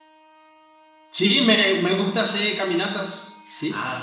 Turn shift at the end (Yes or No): Yes